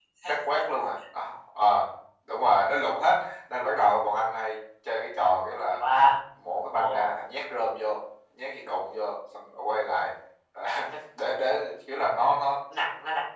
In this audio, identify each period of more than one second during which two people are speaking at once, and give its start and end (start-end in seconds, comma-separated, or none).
none